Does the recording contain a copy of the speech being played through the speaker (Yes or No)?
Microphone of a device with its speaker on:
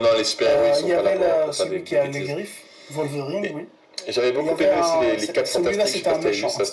Yes